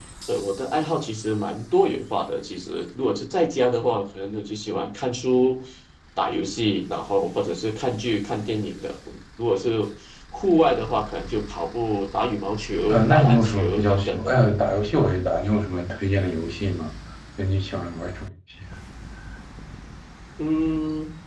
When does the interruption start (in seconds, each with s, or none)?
12.9 s